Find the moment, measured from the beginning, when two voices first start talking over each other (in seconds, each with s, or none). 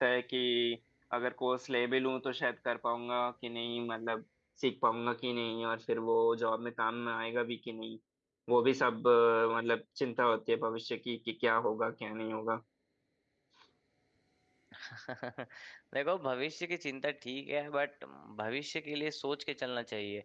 none